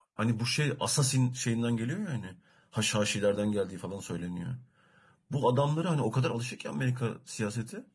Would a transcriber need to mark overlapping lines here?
No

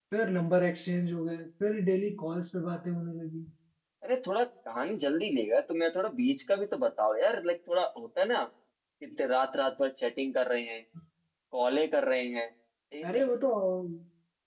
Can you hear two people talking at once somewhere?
No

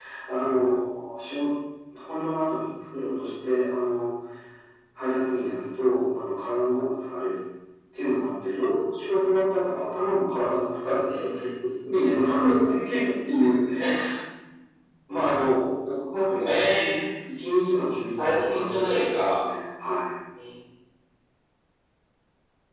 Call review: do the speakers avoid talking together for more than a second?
No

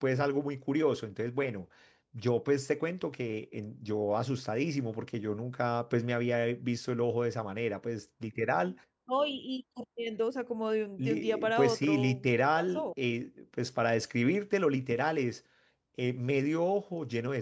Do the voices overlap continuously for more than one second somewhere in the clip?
Yes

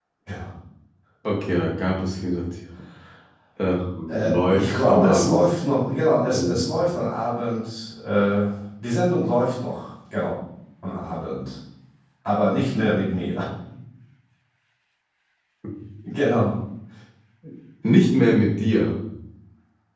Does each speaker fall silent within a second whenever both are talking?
No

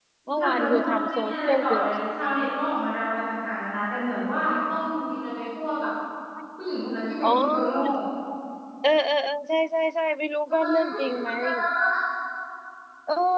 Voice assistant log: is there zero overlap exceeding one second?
No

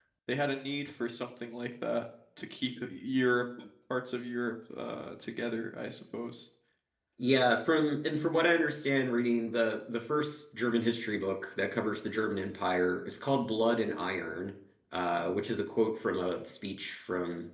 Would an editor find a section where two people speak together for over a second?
No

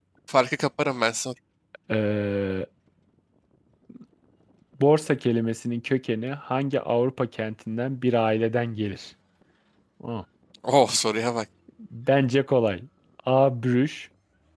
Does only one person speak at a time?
Yes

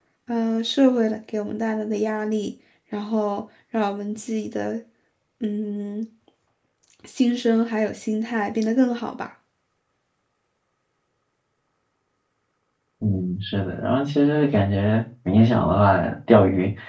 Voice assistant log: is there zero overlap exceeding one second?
Yes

